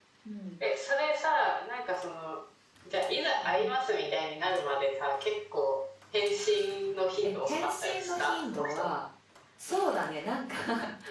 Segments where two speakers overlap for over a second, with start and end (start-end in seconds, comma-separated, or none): 7.2-8.9